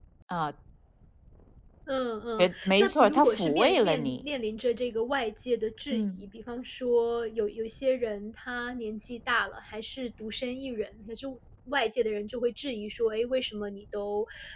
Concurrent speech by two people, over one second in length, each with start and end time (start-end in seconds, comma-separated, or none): 2.4-4.2